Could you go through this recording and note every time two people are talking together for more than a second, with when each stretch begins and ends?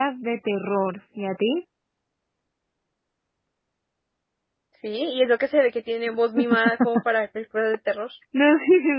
none

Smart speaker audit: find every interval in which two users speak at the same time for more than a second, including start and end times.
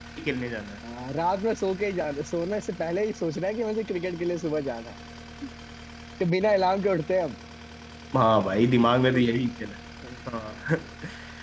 none

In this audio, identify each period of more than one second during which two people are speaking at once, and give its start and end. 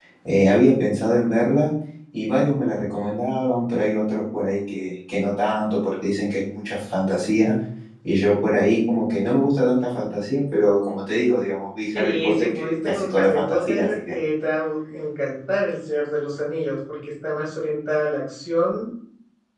11.9-14.1

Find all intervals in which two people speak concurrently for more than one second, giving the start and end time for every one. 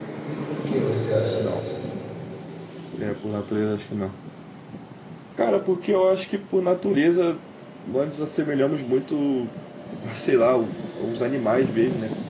none

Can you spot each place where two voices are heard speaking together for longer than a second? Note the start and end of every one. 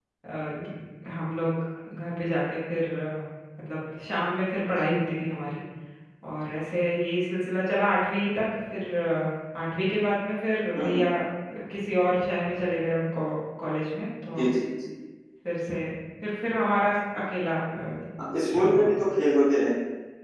none

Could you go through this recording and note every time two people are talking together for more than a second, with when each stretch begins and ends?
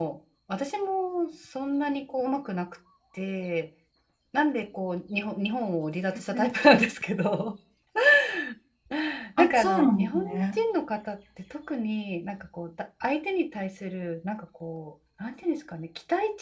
9.4-10.6

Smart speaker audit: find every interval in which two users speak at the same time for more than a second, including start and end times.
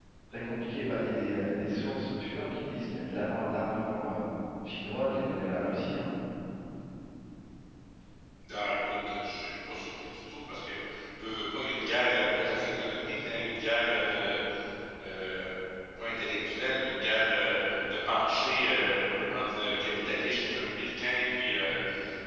none

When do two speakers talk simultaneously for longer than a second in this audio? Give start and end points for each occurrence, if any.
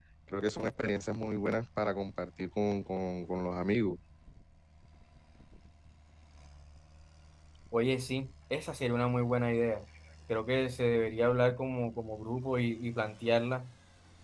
none

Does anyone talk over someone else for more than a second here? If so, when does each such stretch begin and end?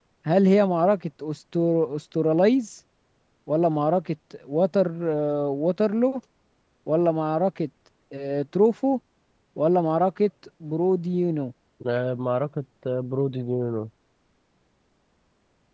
none

